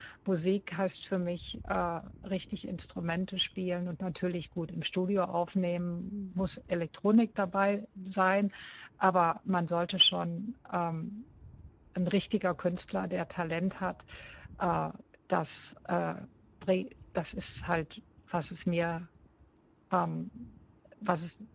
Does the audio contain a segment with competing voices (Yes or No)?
No